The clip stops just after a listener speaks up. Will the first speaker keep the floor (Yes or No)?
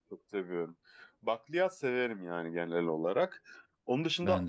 Yes